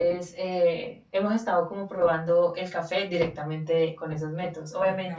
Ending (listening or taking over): listening